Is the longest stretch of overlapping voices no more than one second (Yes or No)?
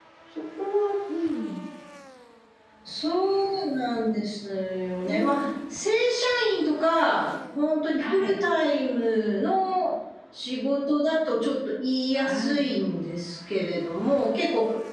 Yes